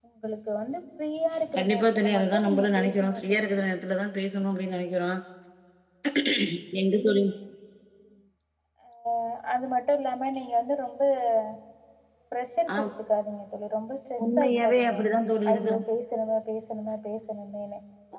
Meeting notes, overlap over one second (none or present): present